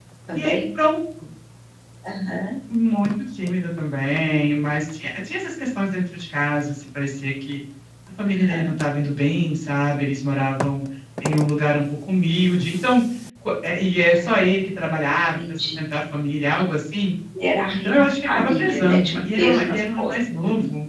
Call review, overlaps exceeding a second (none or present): present